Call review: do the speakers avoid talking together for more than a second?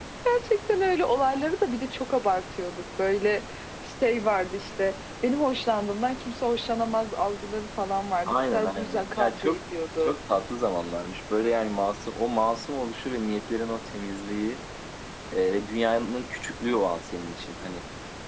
No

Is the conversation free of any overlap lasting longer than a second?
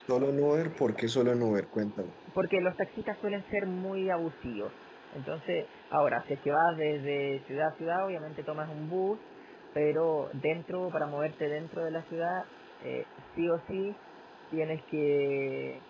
Yes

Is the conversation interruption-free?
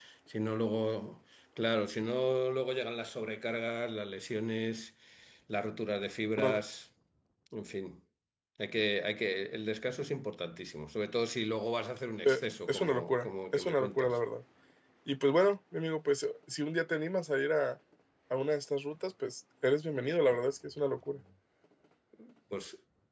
No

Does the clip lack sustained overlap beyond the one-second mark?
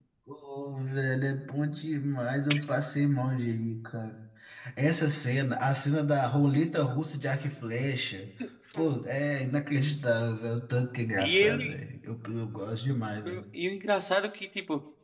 Yes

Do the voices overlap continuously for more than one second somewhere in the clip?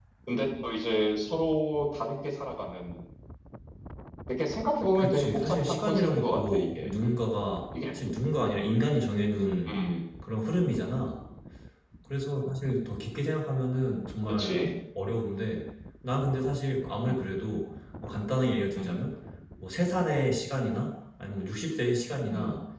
Yes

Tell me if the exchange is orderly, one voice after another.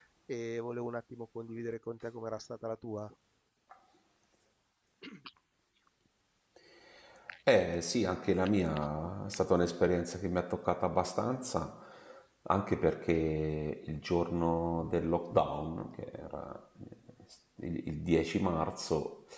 Yes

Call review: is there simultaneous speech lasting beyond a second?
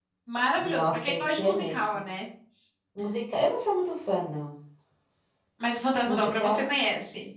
Yes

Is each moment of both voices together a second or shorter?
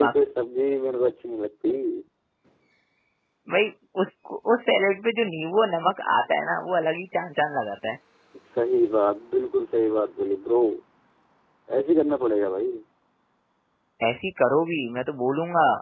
Yes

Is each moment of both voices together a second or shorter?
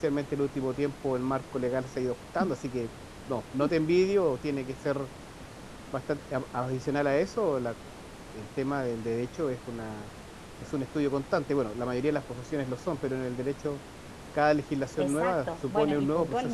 No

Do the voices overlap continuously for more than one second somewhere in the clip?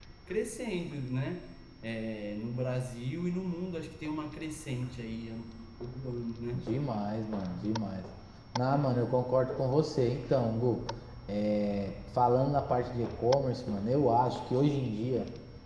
No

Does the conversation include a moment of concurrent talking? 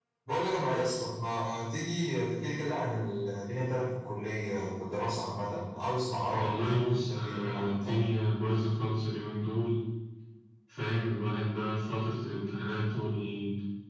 Yes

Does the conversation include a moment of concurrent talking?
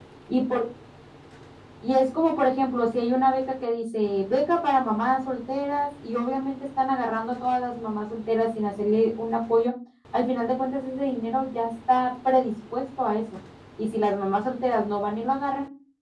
No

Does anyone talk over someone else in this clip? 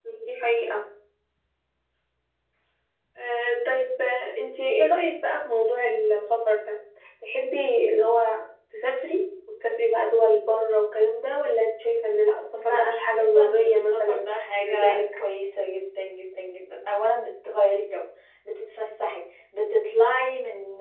Yes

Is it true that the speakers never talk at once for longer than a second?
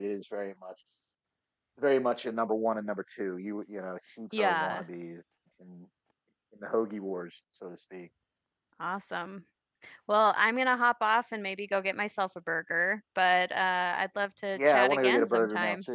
No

